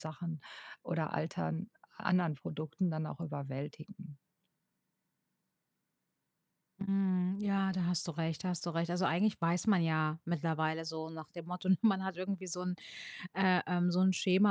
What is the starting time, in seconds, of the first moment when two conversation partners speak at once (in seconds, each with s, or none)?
none